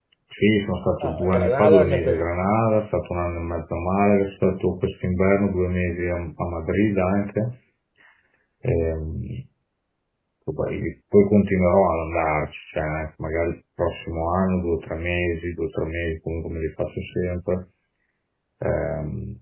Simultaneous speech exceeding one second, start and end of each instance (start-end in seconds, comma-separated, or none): 1.0-2.5